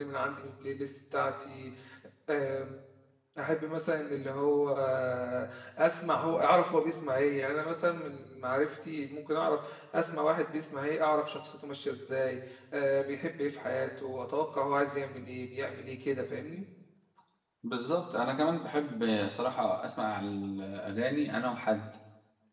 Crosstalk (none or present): none